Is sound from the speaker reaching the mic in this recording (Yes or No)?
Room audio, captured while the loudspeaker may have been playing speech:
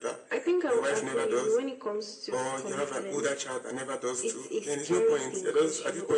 Yes